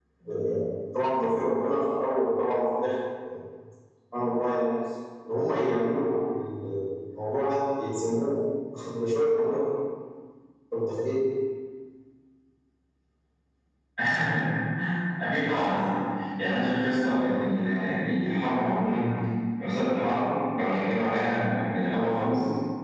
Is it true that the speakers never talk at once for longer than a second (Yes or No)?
Yes